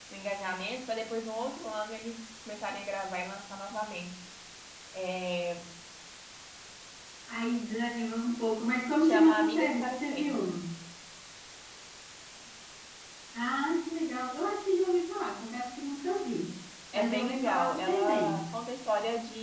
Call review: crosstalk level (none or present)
present